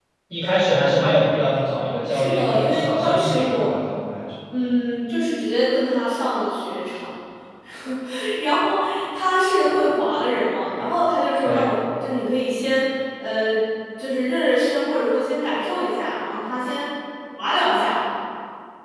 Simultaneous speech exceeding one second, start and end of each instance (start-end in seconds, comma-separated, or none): 2.1-3.7